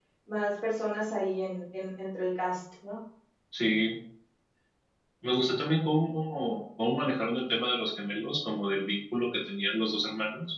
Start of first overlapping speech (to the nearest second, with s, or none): none